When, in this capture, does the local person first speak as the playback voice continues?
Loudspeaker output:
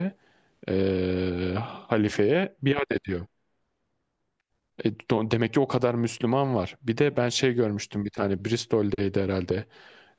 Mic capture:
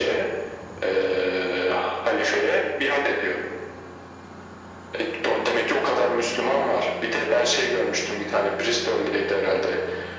none

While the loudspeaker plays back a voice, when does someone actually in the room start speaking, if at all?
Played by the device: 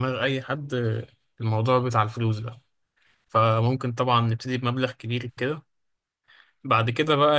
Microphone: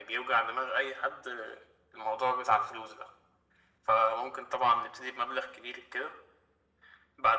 none

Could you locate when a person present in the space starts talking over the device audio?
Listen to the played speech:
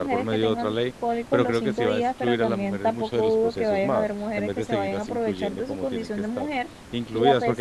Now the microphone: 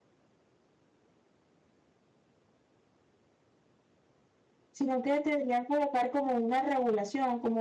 4.7 s

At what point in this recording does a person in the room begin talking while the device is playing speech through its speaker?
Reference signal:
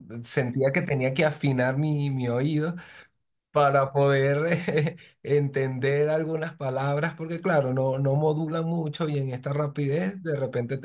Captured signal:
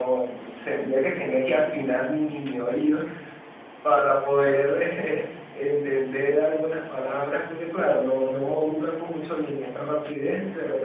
none

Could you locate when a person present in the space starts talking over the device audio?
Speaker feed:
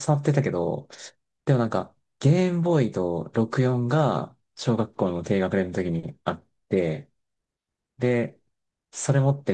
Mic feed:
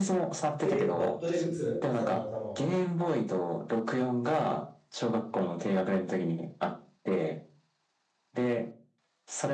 0.6 s

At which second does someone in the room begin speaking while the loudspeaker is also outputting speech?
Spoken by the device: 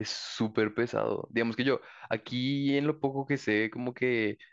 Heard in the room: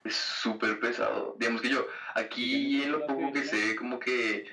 2.4 s

